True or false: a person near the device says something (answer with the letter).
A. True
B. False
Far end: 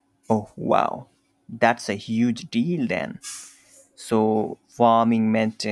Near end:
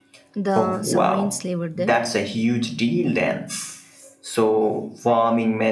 A